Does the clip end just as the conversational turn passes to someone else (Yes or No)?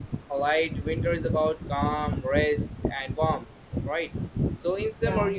No